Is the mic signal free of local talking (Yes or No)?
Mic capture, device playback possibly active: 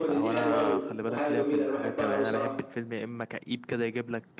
No